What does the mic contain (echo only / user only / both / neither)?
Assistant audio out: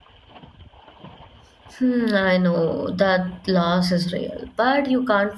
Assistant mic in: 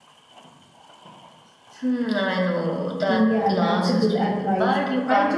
both